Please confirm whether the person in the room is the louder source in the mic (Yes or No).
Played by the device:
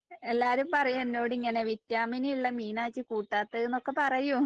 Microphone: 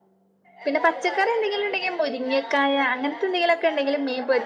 Yes